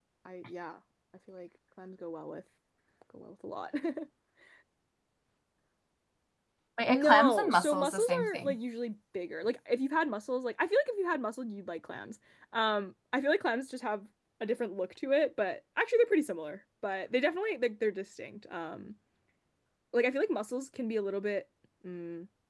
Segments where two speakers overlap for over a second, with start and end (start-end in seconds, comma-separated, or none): 6.9-8.5